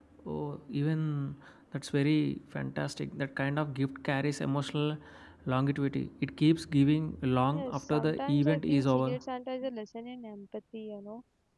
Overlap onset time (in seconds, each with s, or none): 7.5 s